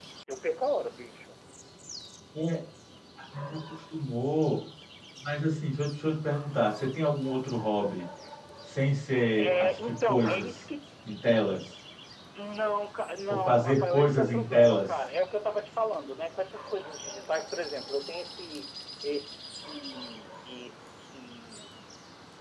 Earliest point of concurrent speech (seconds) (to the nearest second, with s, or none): 9 s